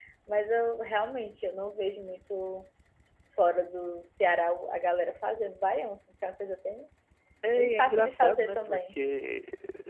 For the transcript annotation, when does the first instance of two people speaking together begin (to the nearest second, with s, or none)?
8 s